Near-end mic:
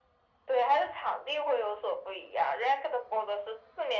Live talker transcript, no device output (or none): none